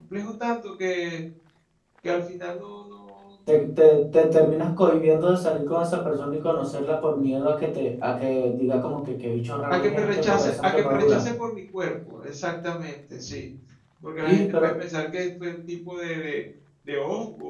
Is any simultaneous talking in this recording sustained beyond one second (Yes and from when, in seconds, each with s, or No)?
Yes, from 9.7 s